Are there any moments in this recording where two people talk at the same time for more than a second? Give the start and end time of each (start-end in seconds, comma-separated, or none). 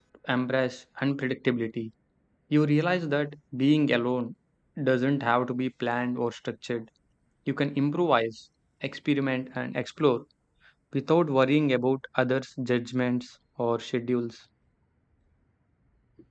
none